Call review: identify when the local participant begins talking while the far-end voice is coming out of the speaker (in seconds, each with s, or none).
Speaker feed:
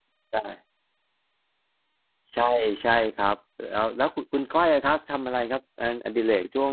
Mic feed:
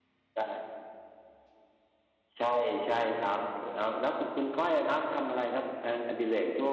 none